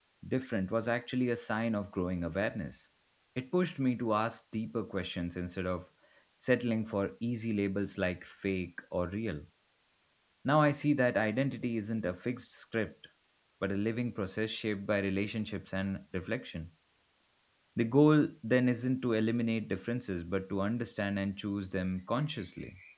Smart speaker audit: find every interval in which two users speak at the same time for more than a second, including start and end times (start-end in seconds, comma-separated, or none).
none